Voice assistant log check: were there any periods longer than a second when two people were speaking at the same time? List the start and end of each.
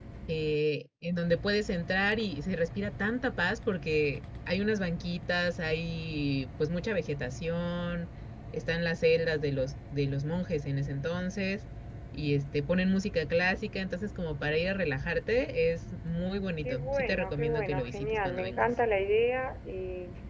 16.6-18.7

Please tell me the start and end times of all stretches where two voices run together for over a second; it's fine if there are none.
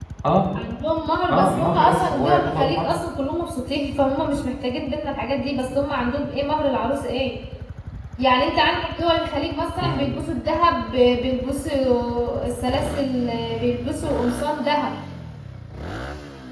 1.3-2.9

